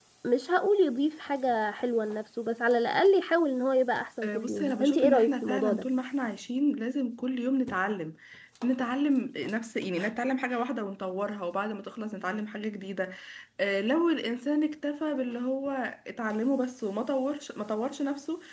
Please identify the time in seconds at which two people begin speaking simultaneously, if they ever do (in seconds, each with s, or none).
4.2 s